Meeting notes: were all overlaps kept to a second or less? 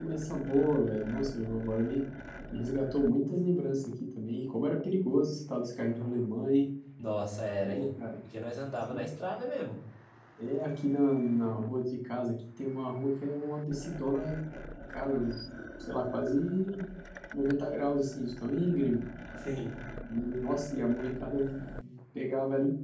Yes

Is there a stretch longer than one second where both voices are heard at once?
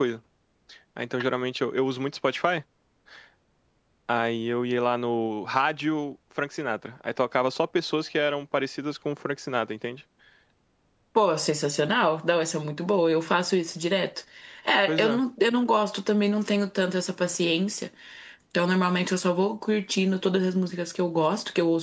No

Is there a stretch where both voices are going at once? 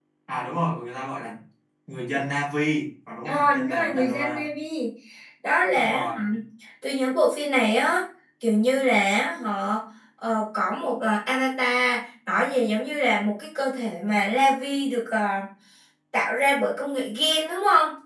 Yes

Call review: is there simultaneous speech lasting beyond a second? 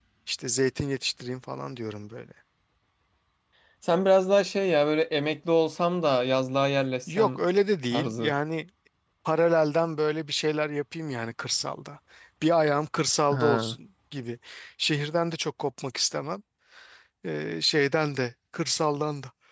No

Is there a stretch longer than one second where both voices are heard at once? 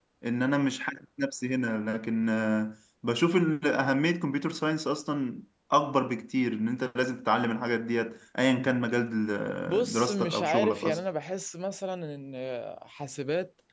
Yes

